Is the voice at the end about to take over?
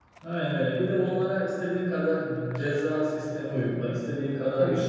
No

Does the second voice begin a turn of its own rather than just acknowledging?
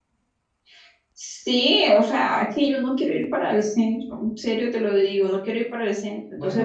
No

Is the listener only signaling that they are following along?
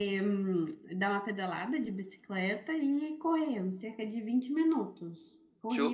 No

